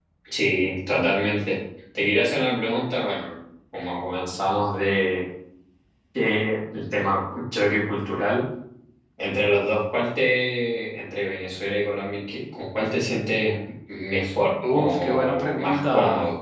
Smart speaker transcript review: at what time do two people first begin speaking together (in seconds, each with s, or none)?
14.6 s